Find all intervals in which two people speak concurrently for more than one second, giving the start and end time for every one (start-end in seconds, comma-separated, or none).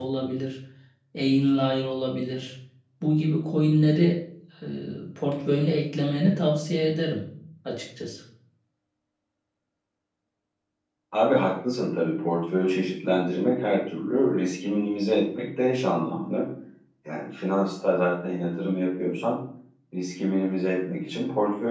none